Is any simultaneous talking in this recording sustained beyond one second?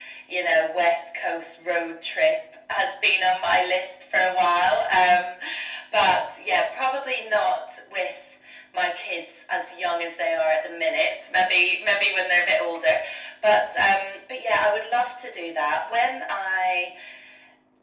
No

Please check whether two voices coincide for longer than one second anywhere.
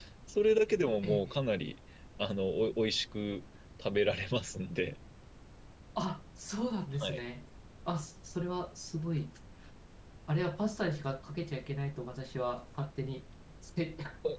No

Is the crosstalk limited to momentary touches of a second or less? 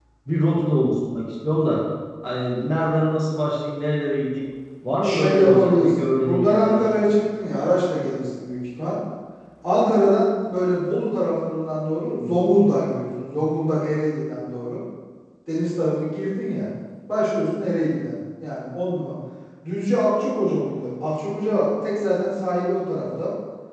No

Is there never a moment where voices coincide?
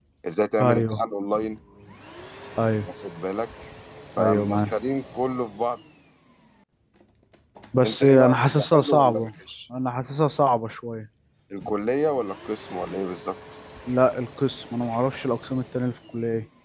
No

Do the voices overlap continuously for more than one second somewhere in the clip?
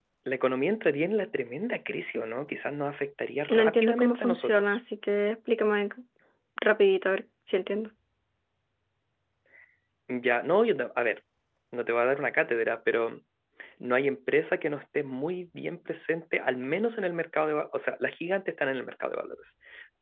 Yes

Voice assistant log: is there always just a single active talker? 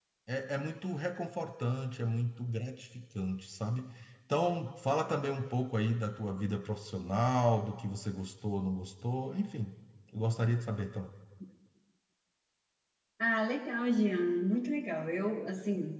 Yes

